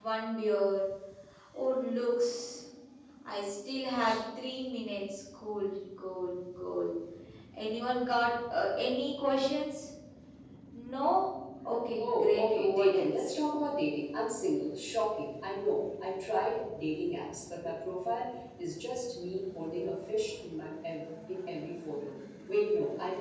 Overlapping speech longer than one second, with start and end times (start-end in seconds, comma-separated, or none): 12.0-13.3